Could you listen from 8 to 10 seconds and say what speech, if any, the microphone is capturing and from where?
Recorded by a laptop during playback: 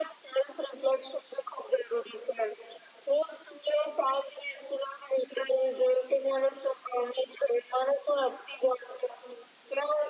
echo only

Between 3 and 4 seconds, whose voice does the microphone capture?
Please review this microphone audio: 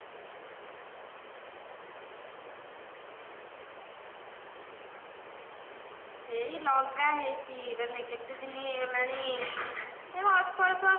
neither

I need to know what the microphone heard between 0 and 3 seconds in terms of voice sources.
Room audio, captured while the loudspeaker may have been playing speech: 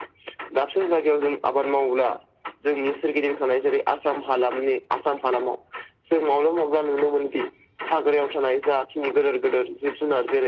echo only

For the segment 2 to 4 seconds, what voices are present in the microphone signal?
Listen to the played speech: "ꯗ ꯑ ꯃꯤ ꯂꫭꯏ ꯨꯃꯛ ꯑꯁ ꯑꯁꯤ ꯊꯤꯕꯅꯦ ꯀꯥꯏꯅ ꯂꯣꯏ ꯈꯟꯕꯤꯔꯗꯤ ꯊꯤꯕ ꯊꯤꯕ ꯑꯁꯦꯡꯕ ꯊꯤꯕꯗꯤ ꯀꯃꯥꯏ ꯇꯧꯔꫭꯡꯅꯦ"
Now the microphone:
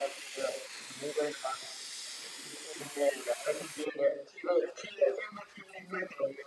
echo only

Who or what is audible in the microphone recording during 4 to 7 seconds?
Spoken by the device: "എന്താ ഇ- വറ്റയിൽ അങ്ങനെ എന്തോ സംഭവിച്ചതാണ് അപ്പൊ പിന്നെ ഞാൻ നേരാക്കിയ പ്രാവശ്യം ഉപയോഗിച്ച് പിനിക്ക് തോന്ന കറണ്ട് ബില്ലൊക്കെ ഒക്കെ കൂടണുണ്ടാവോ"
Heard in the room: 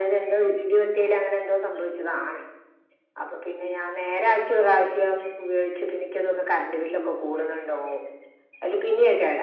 echo only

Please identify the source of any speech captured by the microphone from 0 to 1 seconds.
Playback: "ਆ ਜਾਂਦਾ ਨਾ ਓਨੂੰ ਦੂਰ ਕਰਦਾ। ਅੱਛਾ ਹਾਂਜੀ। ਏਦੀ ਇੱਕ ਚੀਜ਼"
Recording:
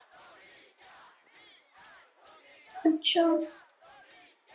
neither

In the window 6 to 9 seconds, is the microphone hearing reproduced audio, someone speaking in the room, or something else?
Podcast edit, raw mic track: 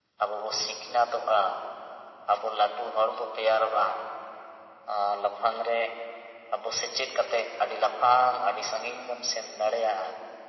echo only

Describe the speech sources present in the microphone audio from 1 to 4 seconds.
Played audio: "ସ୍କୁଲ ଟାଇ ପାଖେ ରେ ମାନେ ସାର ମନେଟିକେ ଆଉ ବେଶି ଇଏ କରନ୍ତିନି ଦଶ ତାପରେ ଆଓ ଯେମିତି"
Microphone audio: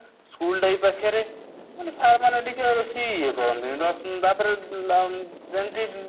echo only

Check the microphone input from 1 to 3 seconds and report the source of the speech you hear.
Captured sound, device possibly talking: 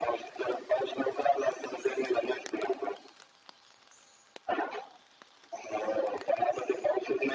echo only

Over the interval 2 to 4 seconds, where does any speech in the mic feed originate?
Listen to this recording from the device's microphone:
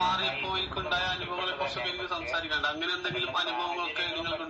echo only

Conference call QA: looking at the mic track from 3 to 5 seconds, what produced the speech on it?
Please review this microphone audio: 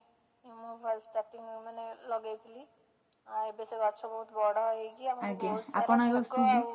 echo only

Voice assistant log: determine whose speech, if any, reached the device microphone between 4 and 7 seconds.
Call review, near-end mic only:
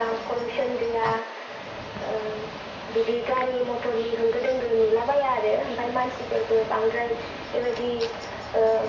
echo only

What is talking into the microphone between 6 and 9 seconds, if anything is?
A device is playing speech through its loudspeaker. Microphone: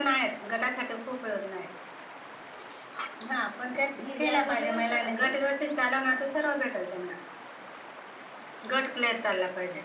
echo only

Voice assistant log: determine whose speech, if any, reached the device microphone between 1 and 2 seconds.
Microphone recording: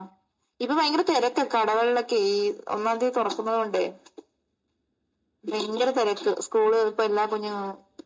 echo only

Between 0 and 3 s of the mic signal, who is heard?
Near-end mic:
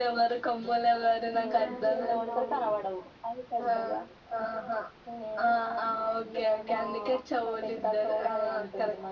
both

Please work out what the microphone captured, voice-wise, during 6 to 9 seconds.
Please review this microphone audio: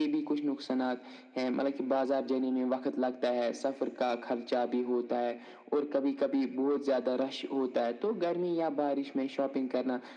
echo only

